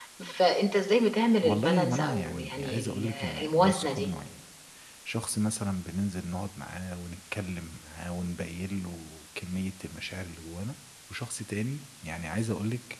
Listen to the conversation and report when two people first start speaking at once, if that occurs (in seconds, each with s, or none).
1.4 s